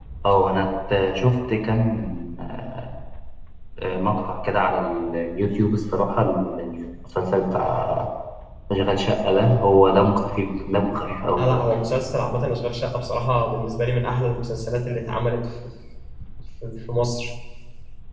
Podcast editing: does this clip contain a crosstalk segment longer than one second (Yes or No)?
No